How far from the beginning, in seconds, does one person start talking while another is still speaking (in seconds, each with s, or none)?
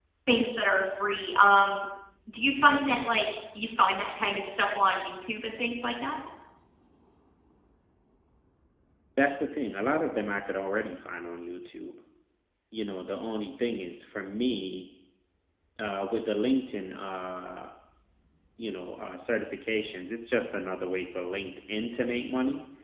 none